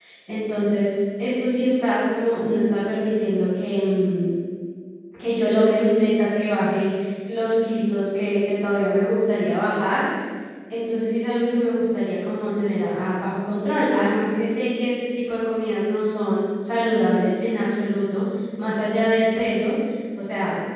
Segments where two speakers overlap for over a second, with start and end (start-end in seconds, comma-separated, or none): none